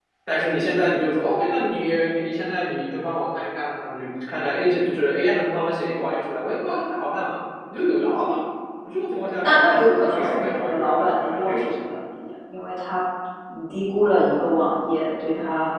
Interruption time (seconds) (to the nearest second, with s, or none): 9 s